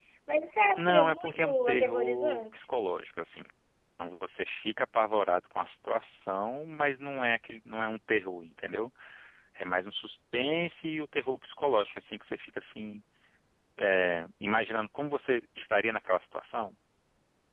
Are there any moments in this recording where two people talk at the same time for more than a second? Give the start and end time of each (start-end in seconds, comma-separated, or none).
0.8-2.6